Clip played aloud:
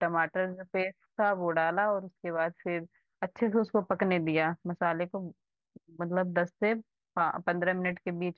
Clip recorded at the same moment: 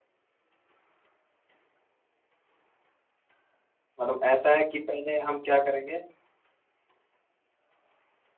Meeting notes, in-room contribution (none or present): present